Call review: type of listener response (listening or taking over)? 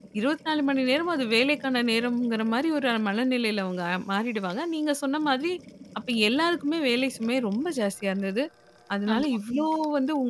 listening